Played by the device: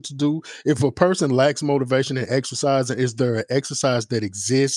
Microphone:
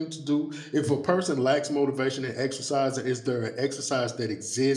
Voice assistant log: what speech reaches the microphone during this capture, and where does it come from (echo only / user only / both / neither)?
echo only